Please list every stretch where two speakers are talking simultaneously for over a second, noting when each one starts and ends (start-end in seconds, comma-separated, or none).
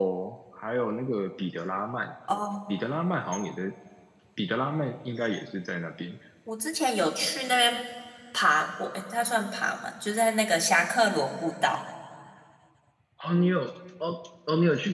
none